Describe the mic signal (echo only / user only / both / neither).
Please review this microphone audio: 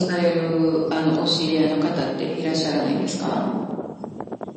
echo only